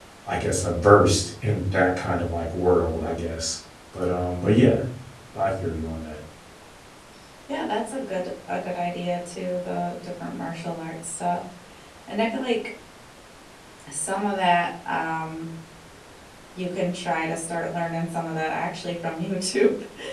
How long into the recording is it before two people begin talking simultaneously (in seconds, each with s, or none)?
none